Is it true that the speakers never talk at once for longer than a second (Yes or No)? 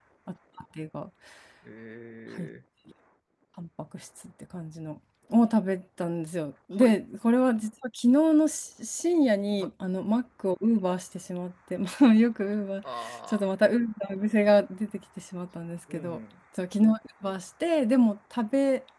Yes